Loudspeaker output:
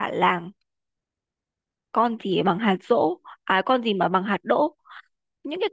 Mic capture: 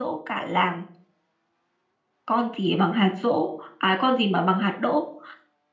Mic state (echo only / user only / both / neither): echo only